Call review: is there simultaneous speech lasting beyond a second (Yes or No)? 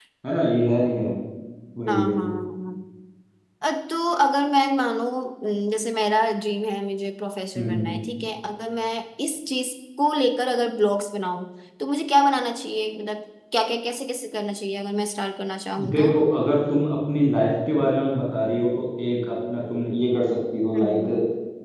No